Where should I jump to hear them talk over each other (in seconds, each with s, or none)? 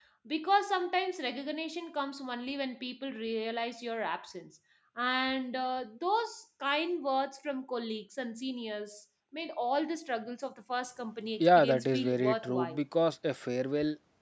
11.4 s